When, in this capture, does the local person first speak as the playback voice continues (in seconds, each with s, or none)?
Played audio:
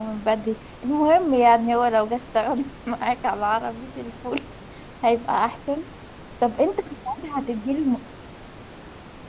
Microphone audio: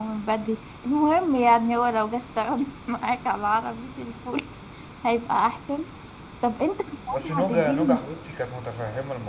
7.1 s